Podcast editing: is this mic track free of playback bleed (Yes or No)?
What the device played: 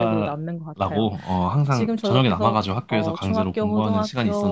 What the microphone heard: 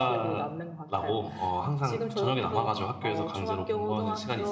No